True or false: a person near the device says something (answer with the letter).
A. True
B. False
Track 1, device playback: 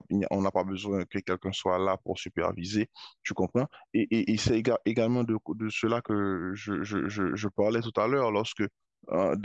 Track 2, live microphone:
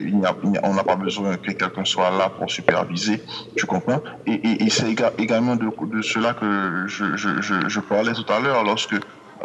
B